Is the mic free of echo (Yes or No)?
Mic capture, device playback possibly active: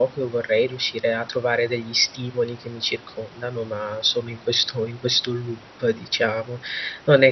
Yes